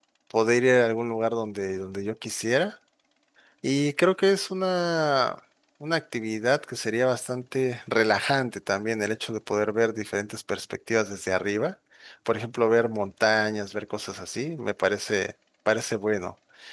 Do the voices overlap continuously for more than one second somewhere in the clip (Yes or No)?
No